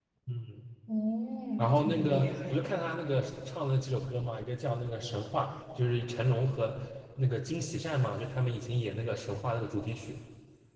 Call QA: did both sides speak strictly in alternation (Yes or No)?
No